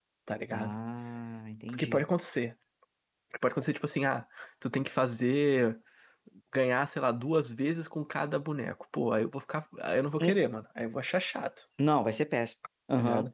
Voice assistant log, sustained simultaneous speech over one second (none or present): none